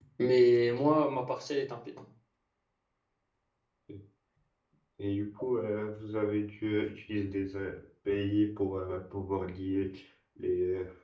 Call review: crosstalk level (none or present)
none